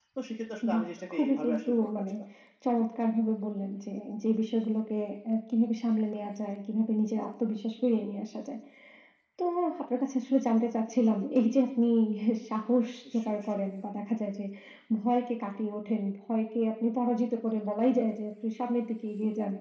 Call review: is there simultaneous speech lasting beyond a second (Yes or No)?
Yes